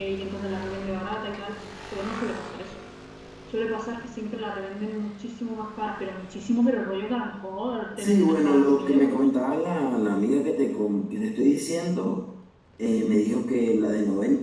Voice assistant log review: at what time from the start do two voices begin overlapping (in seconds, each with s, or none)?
7.9 s